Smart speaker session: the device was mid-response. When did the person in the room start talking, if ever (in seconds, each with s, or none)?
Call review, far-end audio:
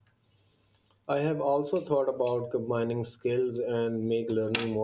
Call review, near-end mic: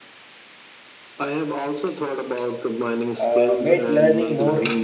3.2 s